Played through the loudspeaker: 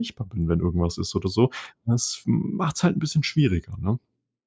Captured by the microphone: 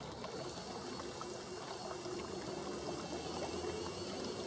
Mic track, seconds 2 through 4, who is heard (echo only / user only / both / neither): neither